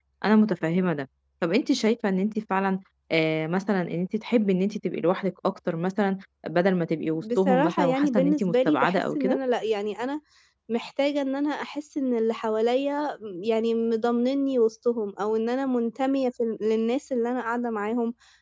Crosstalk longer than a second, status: present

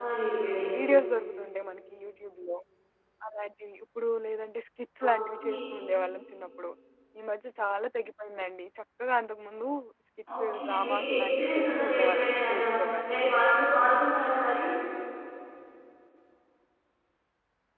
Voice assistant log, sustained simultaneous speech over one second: present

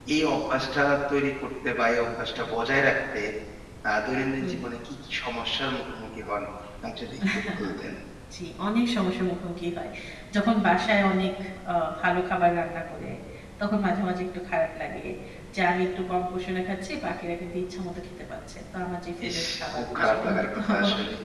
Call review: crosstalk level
present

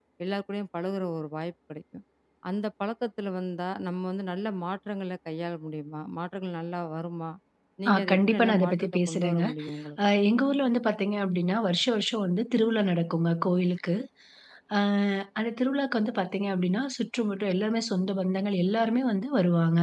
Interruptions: present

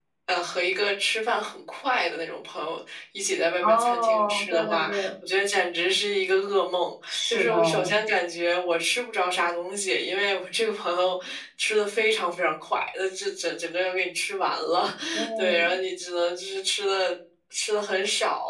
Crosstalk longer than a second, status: present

